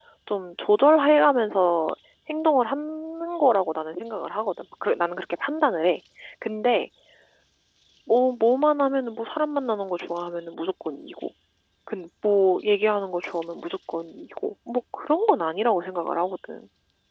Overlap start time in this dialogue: none

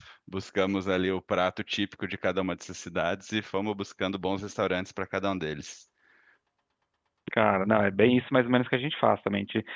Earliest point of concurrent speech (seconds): none

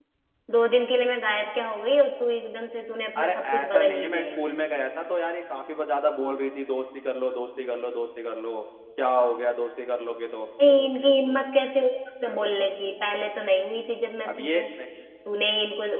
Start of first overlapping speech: 3.2 s

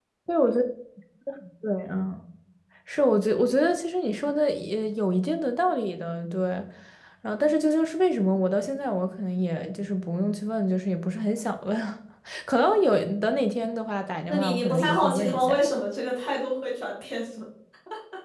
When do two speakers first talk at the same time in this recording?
14.3 s

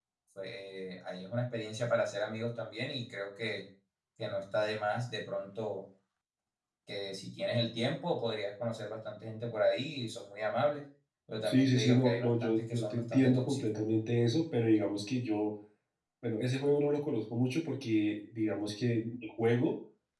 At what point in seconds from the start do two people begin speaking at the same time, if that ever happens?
11.4 s

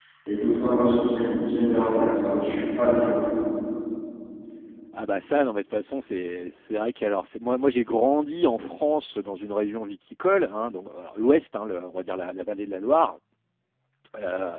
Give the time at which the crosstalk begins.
none

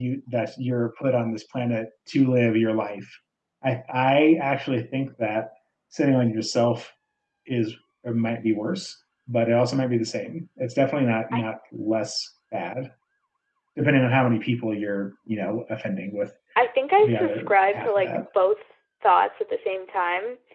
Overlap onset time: 17.0 s

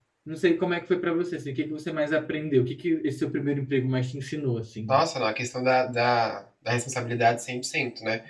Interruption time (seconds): none

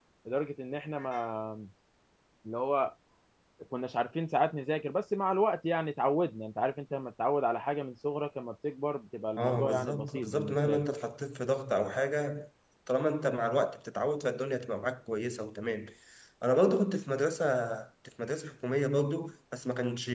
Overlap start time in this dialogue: 9.4 s

